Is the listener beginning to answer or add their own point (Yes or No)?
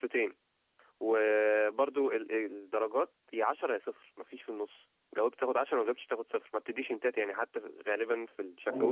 Yes